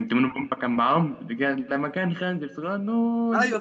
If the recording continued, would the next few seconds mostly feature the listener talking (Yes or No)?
Yes